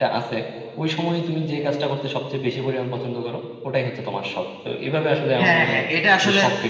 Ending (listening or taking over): taking over